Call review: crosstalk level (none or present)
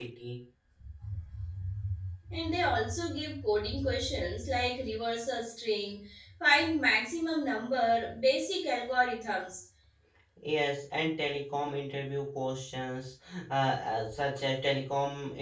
none